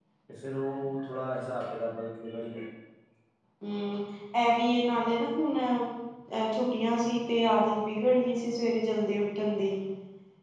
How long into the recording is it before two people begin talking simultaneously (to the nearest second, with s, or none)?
none